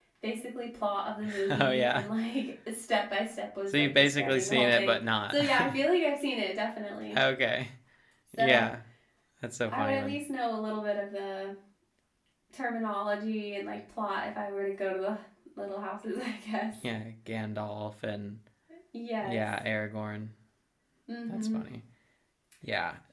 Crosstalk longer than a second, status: present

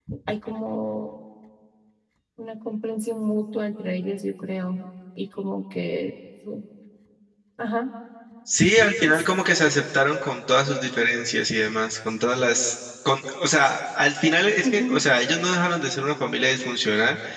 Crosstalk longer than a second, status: none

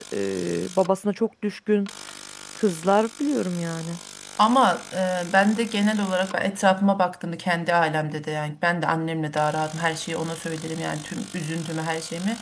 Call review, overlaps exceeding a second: none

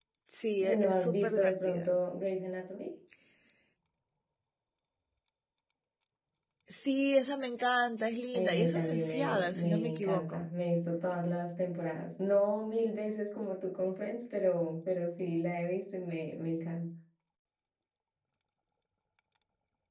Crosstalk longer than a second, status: present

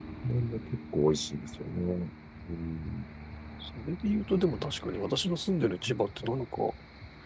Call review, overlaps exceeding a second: none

